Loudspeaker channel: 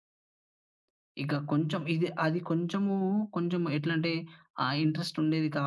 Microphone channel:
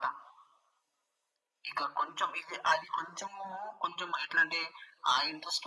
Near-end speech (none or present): none